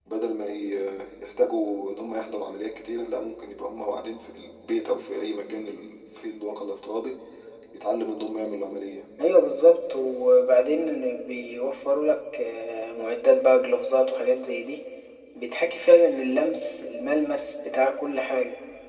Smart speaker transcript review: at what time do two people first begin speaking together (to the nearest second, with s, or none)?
none